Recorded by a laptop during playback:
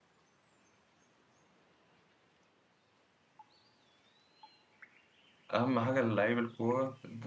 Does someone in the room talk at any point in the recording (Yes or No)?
Yes